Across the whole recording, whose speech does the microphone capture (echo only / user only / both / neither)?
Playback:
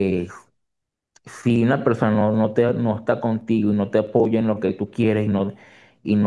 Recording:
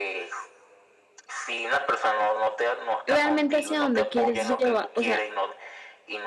both